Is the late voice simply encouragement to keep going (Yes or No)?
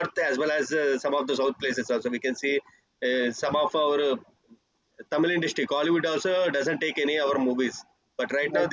Yes